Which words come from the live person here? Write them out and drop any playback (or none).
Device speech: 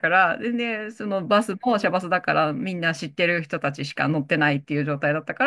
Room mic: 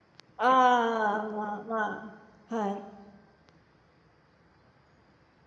あ、ああ、まあまあ、はい。